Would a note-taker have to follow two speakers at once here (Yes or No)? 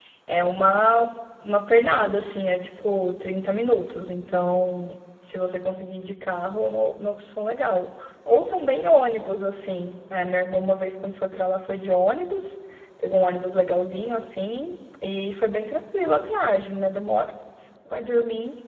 No